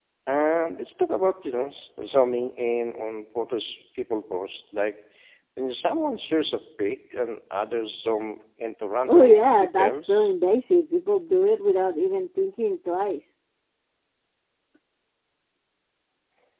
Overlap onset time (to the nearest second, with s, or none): 9 s